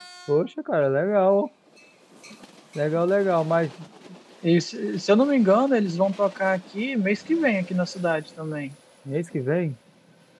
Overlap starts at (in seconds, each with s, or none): none